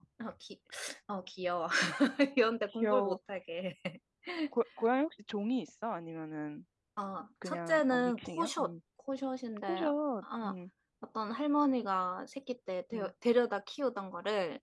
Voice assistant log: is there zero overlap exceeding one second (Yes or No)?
No